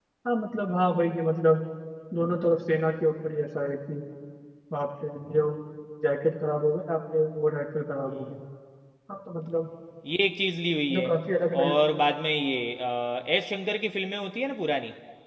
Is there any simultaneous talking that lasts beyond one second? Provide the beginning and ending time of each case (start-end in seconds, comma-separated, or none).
none